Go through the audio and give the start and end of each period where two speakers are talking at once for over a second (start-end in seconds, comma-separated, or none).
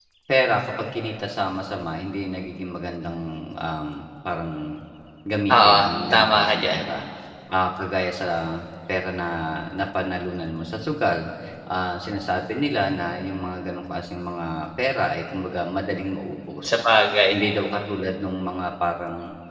5.5-6.8